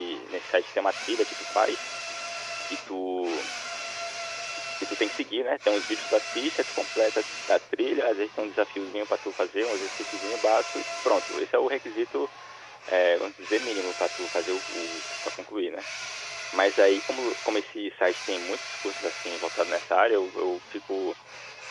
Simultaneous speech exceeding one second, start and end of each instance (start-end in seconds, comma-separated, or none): none